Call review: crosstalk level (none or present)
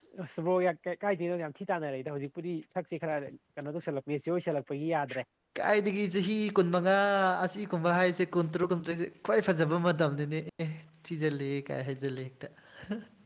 none